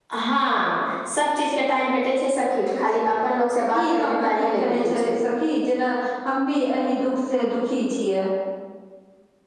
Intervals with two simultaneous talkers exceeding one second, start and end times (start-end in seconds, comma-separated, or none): 3.8-5.1